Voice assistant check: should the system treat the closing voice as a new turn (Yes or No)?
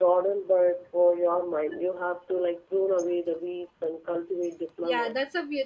Yes